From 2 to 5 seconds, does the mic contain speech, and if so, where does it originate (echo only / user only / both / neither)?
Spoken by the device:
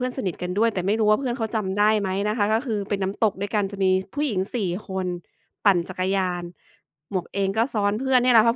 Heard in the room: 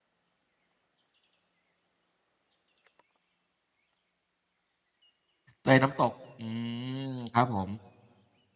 neither